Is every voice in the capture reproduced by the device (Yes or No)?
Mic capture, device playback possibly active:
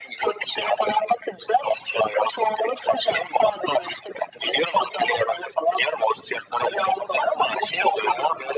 Yes